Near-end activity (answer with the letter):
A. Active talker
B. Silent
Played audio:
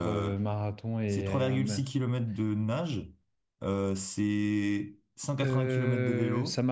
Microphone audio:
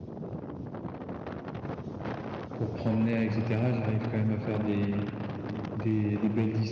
A